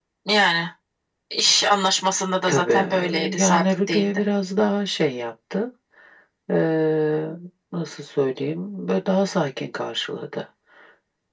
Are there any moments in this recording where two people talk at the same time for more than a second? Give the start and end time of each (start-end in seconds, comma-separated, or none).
2.5-4.2